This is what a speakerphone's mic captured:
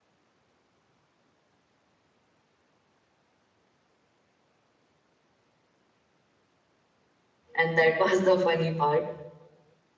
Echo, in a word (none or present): none